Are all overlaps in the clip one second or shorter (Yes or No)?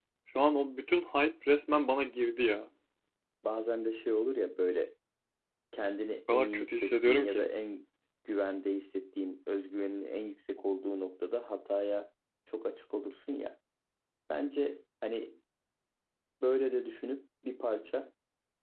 No